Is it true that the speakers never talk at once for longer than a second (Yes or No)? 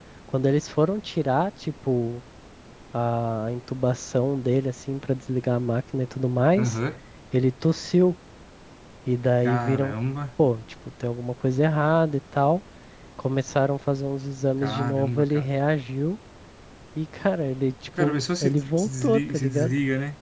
No